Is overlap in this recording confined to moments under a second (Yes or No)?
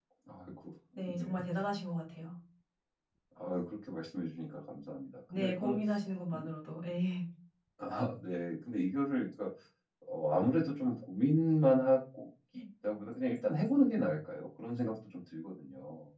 Yes